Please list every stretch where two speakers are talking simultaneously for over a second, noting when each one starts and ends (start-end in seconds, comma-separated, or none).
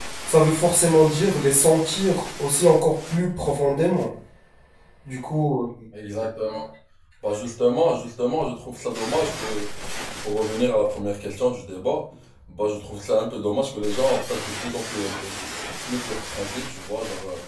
none